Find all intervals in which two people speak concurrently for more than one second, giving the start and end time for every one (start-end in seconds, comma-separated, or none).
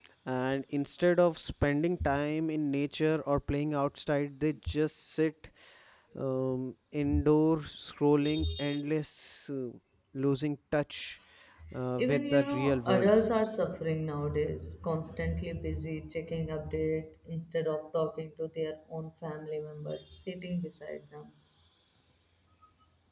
12.0-13.2